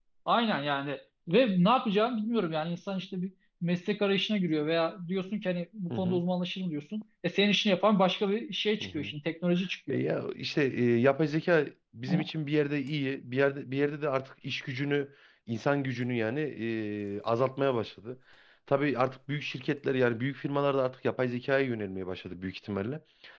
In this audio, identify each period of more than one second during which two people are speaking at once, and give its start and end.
none

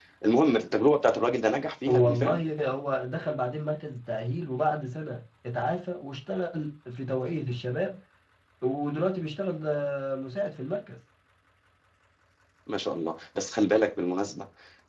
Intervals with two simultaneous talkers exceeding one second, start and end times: none

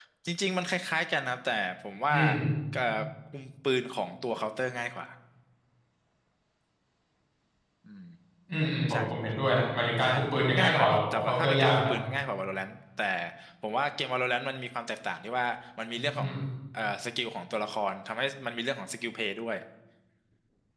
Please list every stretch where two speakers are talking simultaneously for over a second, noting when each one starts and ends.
10.6-11.9

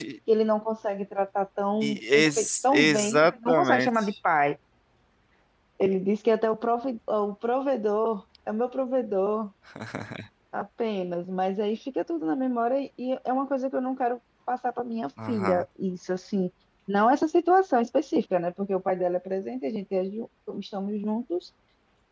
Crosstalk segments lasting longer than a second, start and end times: 1.8-4.1

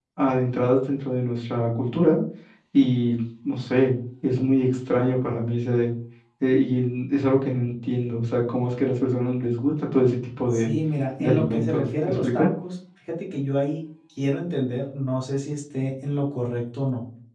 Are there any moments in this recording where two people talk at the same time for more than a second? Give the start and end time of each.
11.2-12.5

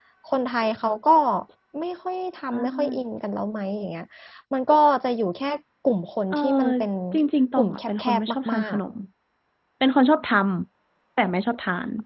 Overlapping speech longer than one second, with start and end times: 7.6-8.8

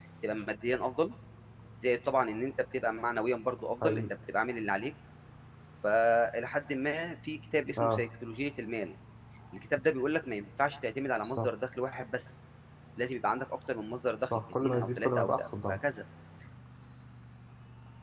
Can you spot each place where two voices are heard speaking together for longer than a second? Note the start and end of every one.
14.2-15.8

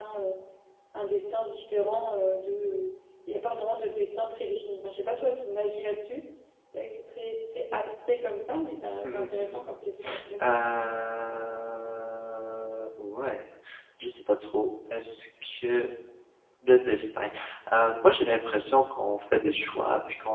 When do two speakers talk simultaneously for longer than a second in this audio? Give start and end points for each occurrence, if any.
none

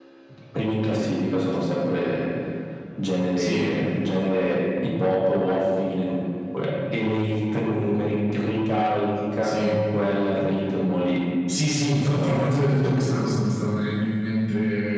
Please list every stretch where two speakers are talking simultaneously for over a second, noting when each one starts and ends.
11.9-13.3

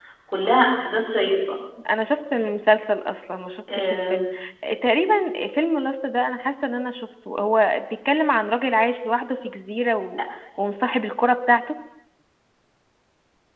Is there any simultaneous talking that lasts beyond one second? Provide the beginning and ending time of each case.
none

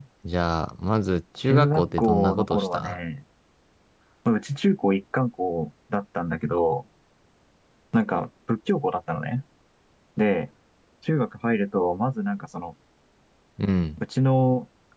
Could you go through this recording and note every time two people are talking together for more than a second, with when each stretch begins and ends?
1.4-3.0

